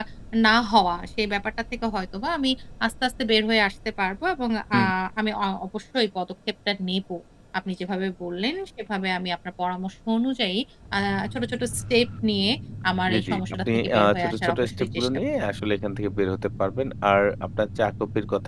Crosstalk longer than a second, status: present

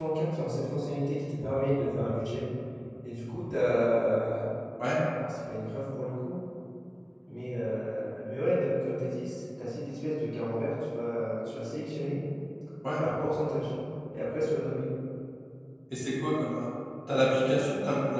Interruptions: none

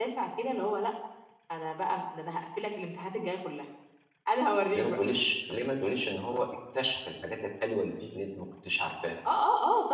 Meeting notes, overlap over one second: none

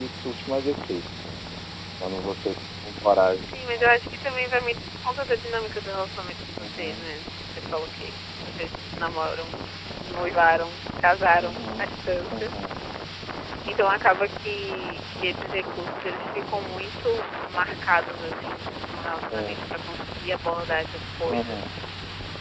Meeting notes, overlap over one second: none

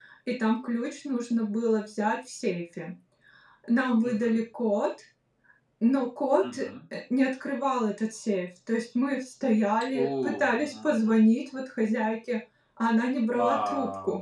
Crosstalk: present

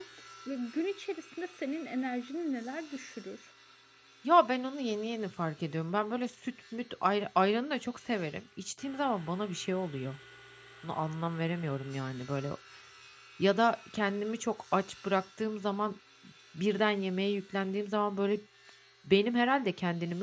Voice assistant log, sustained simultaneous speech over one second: none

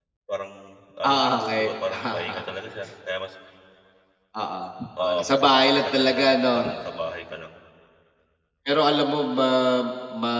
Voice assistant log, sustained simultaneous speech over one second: present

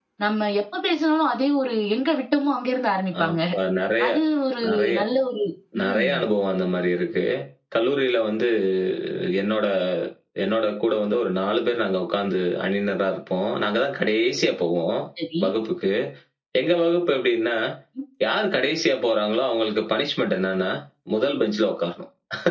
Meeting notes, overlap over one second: none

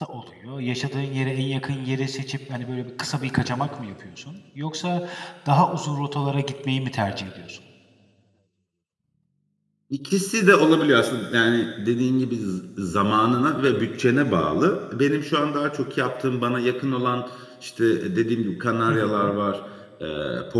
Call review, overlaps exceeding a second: none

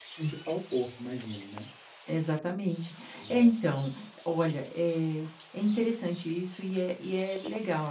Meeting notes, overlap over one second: none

